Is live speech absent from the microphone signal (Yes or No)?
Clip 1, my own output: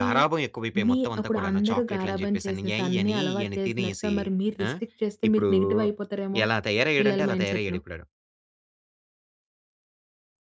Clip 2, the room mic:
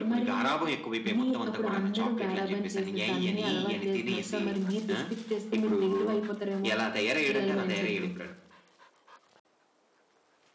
Yes